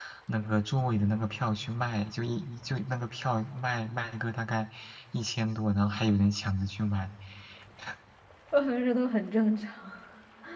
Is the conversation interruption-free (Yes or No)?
Yes